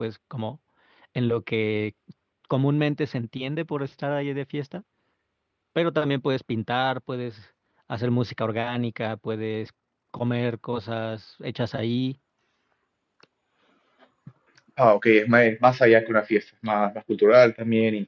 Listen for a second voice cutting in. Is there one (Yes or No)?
No